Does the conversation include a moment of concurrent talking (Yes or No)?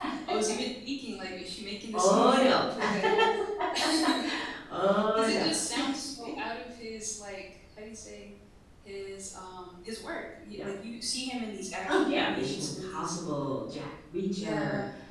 Yes